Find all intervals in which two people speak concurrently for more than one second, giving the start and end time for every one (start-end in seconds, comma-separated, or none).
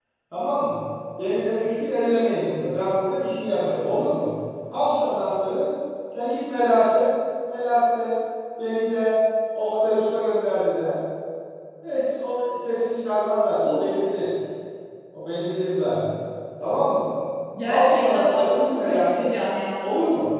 17.7-19.3